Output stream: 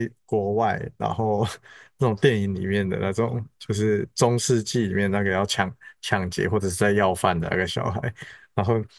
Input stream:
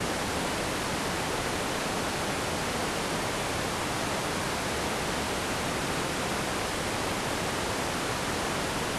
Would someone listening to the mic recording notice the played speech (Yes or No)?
No